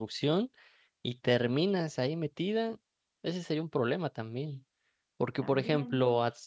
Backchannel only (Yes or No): Yes